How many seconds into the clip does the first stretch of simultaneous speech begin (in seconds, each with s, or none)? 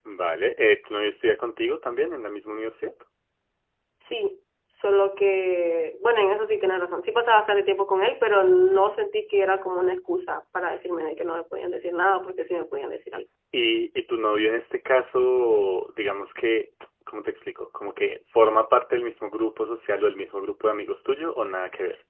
none